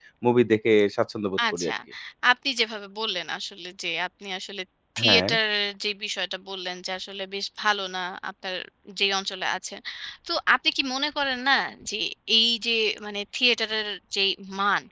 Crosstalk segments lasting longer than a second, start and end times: none

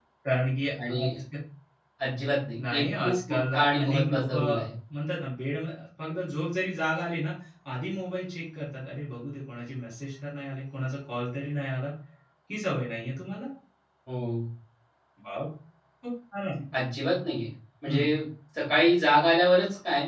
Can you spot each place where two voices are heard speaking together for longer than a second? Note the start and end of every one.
2.7-4.6

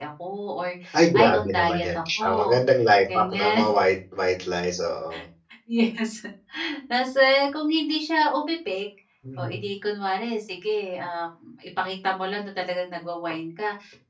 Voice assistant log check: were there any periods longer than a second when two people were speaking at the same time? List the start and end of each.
1.1-2.6

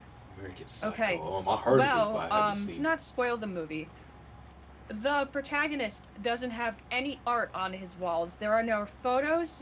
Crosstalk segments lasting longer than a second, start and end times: 1.7-2.9

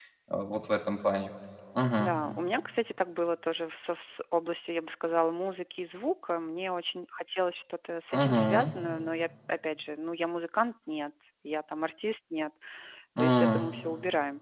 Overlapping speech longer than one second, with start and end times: none

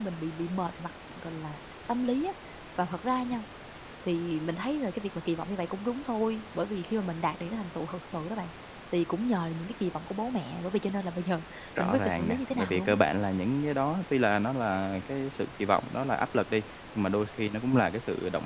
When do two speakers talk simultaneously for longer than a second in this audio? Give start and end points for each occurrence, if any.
11.8-13.0

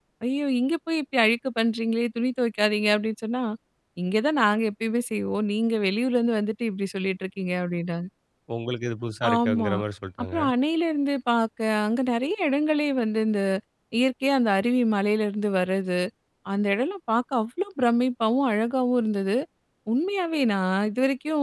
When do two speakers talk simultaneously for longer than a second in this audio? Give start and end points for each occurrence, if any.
none

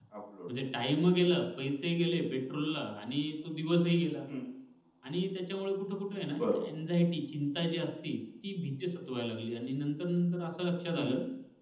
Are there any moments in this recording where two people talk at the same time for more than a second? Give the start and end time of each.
none

